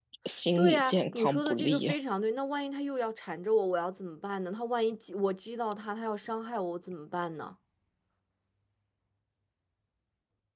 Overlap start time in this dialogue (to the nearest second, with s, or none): 1 s